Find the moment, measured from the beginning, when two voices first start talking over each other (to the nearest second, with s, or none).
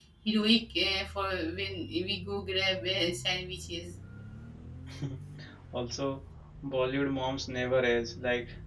none